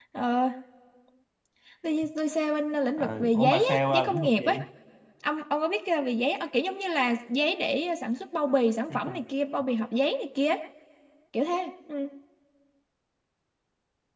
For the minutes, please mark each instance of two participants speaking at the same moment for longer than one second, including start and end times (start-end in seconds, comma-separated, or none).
3.0-4.6